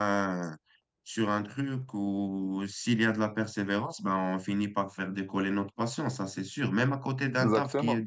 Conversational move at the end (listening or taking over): listening